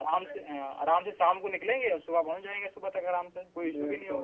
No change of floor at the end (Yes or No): No